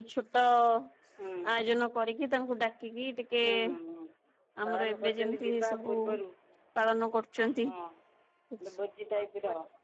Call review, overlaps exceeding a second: present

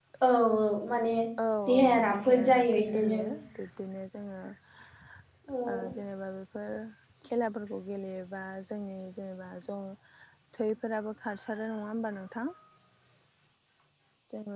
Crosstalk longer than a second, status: present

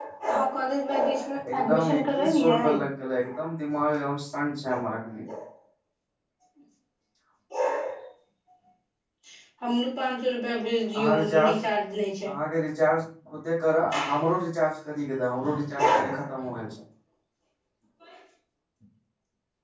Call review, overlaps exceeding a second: present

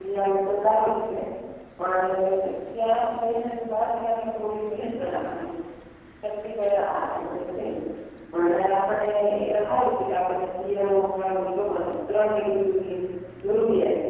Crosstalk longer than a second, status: none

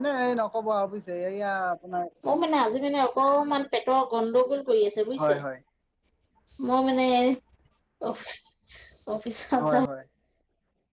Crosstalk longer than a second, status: none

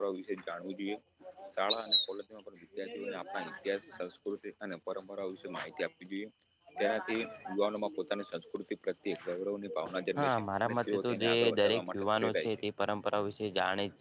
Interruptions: present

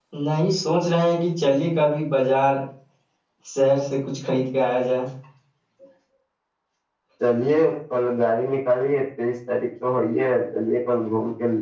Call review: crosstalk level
none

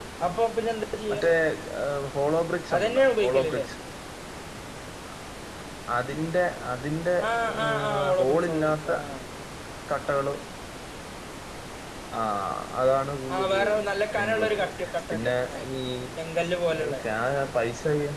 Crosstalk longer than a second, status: present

